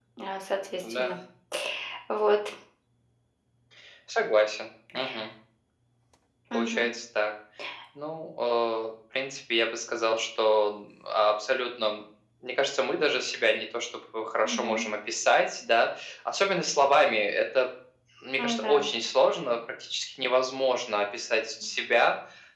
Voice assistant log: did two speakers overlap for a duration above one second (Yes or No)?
No